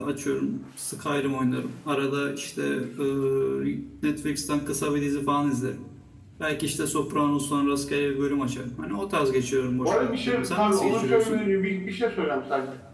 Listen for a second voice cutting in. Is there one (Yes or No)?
Yes